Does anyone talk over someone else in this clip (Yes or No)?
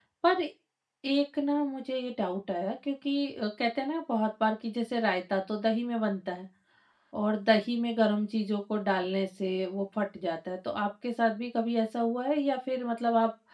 No